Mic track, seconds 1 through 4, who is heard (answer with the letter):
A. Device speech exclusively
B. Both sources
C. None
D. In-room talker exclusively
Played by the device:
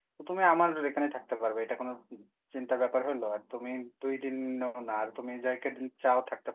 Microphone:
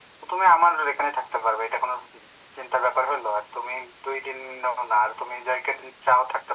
A